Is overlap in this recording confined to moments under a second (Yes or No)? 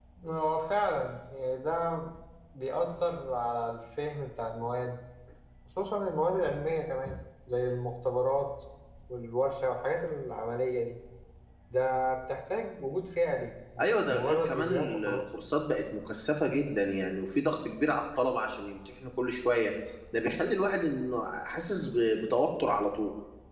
No